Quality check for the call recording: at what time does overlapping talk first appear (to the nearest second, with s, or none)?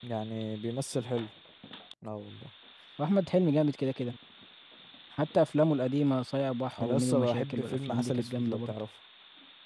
7 s